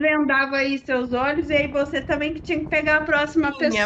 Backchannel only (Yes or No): No